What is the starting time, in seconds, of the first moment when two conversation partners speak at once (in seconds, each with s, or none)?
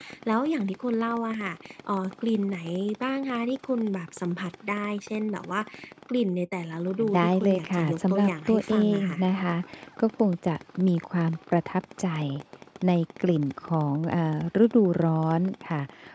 7.0 s